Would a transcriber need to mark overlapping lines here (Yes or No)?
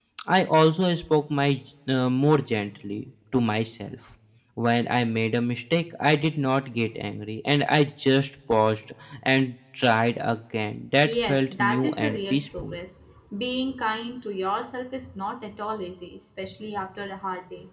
Yes